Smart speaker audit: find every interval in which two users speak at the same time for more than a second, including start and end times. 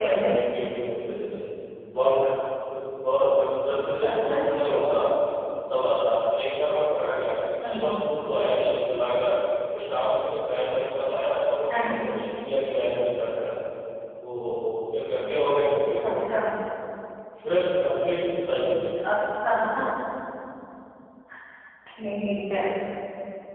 none

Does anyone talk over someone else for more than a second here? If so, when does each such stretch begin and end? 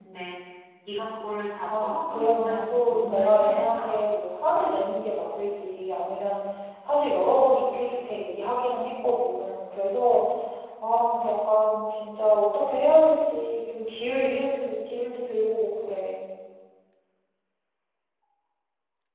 1.7-4.0

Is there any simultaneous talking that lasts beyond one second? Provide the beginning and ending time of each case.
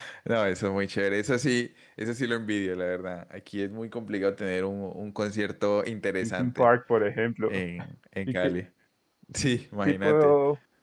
none

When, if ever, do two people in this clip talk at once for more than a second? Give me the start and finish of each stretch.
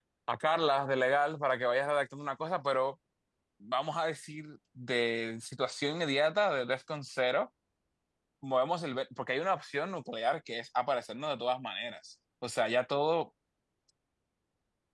none

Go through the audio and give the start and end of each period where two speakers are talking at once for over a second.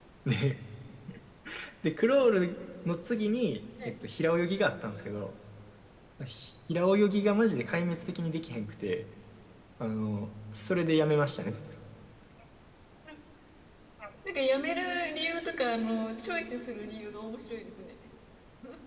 none

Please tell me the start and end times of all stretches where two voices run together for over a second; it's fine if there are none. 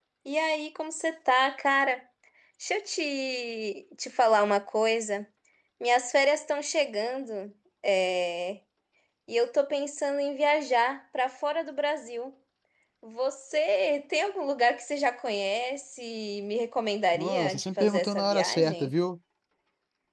17.1-18.9

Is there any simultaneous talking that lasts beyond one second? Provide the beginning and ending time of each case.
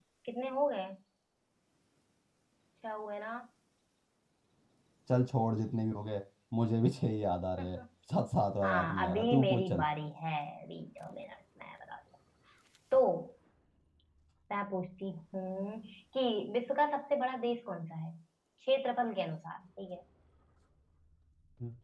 8.6-9.8

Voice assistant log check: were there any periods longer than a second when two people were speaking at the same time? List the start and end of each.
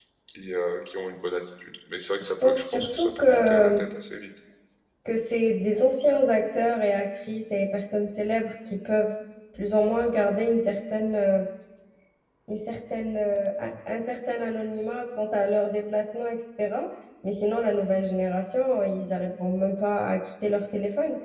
2.2-3.8

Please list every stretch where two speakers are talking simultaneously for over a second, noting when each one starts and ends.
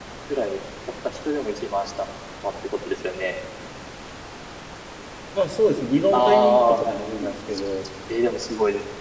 6.1-7.3

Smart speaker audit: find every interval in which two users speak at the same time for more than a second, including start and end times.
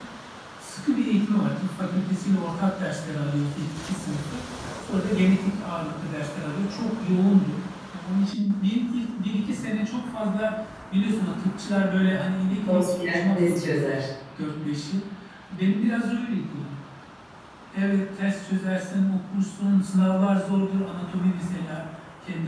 12.7-14.0

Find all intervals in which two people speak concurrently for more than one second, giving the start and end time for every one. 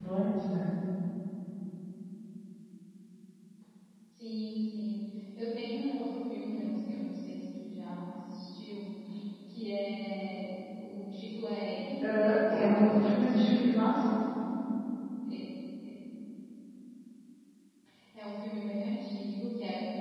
12.0-13.8

